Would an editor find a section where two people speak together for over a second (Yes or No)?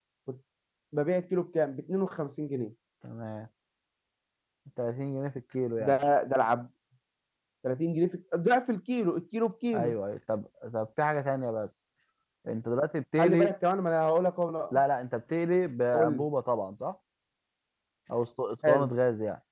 No